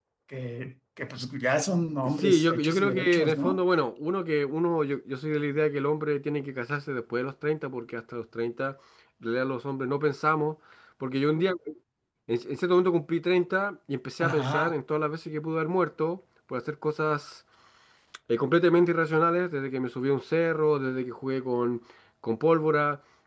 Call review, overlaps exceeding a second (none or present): present